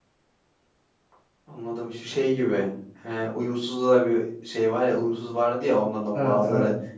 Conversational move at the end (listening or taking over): listening